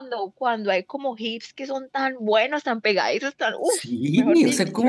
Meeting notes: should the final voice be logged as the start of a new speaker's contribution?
Yes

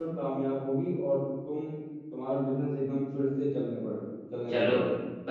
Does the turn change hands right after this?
Yes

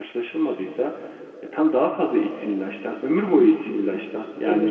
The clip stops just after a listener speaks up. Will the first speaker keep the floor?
No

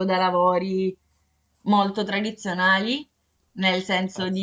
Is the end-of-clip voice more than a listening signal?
No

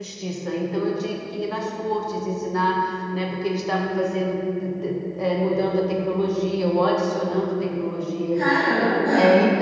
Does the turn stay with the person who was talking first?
Yes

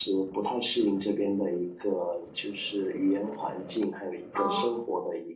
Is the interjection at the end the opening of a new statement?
No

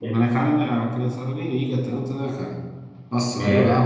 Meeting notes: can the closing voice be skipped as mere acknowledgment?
Yes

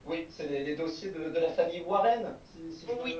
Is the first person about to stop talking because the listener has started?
Yes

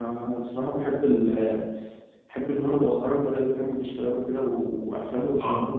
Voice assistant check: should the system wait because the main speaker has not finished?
No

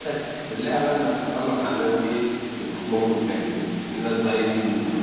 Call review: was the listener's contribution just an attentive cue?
Yes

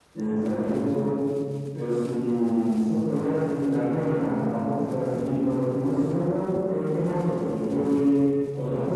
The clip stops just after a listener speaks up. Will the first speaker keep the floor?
Yes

